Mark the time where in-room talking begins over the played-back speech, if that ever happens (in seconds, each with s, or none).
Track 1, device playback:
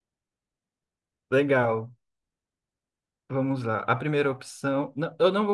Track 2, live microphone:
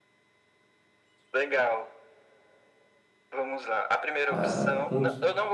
4.3 s